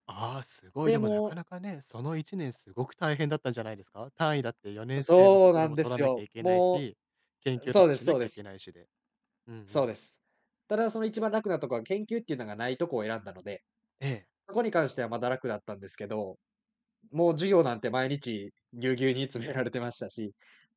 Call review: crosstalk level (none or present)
present